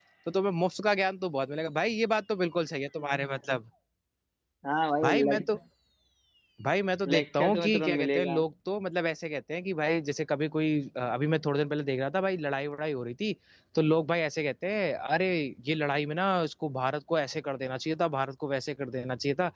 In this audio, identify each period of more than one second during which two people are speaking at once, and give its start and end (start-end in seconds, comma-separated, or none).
7.1-8.4